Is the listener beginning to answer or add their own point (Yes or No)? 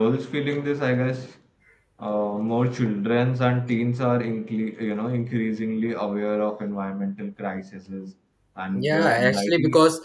Yes